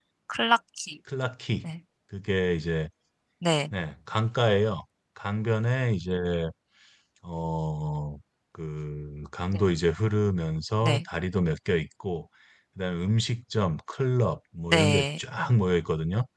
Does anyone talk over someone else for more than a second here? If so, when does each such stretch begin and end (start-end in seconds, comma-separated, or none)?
none